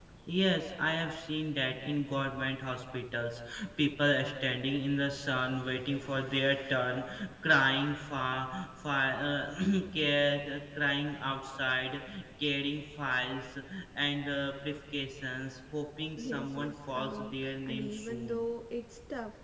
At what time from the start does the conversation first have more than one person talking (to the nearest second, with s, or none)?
16 s